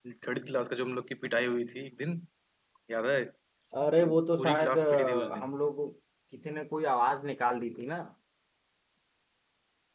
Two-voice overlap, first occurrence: 4 s

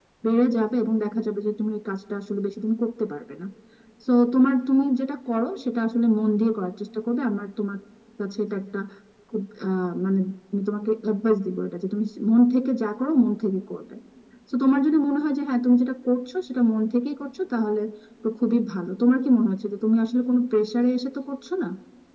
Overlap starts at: none

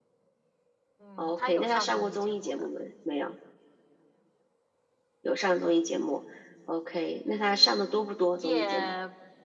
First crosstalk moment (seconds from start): 1 s

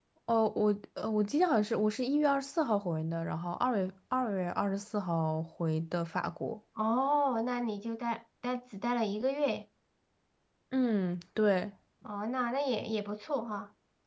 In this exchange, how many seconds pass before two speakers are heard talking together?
none

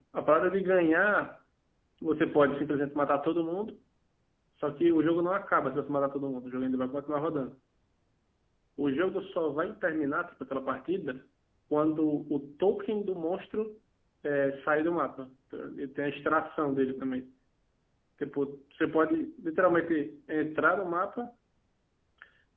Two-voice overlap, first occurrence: none

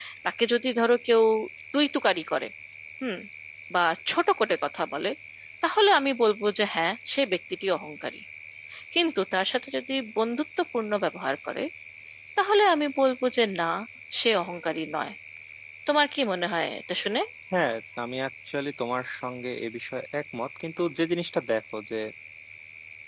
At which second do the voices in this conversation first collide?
none

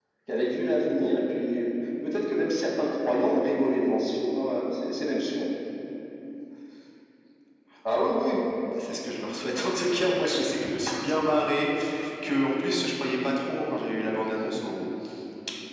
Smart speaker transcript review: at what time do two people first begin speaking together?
none

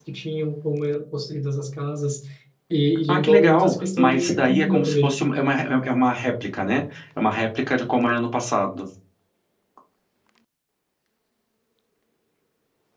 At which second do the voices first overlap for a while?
3 s

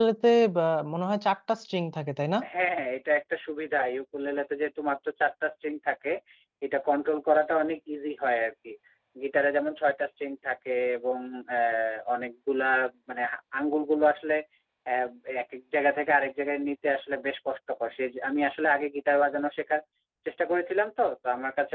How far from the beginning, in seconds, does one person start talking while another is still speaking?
none

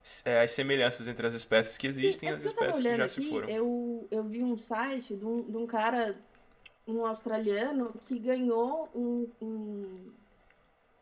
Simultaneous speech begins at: 2 s

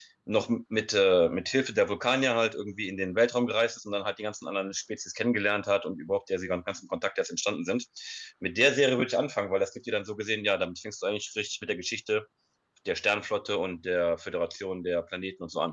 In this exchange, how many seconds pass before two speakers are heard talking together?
none

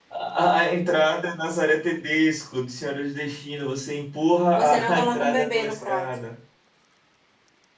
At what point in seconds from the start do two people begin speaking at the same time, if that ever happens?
5 s

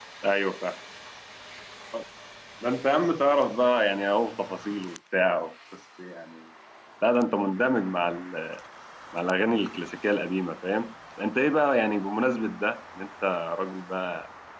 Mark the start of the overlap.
none

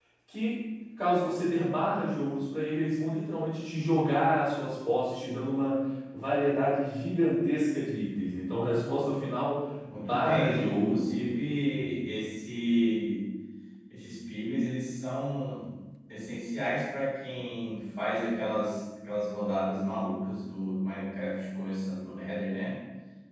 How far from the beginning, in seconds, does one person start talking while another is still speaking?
10 s

